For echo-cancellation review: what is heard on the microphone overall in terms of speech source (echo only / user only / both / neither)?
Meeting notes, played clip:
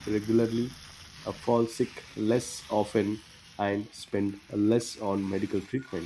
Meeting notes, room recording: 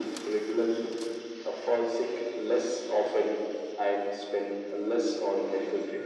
echo only